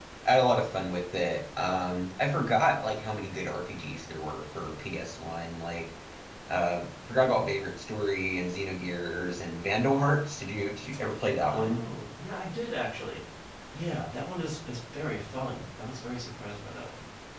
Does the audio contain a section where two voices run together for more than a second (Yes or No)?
No